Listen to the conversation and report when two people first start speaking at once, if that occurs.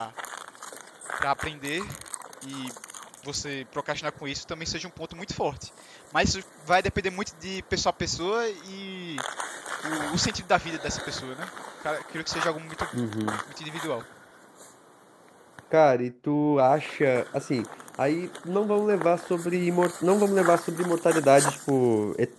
none

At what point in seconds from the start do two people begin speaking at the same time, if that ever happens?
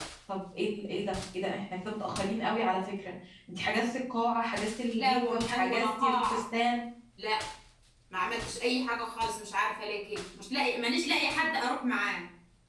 4.9 s

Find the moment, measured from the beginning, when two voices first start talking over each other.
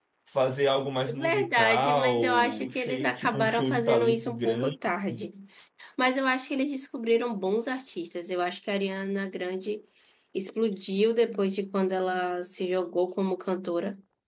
1.1 s

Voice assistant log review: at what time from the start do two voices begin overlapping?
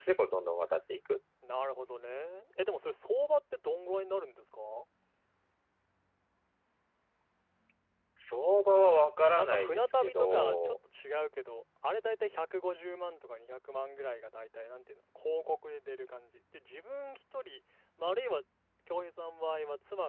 9.3 s

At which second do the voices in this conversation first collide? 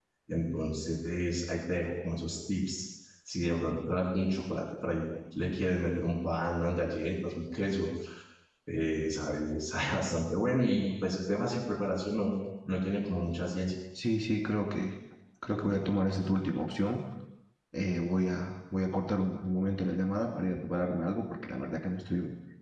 none

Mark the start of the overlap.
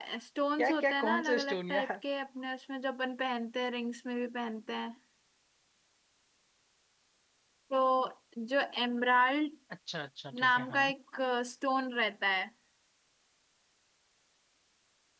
0.6 s

